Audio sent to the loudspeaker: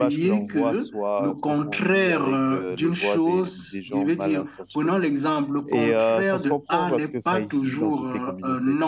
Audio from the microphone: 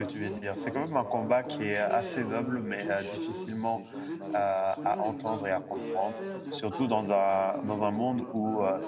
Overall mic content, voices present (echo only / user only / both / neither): both